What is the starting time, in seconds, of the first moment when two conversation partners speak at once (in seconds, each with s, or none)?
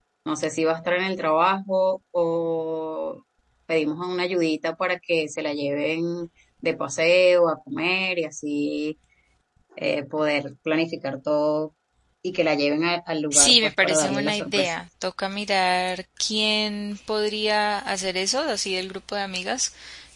13.3 s